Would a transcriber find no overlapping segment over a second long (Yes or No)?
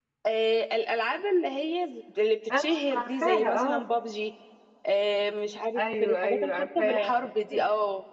No